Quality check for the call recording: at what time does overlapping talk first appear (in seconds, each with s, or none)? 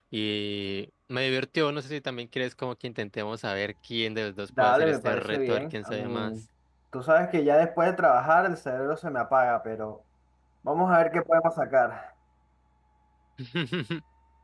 4.5 s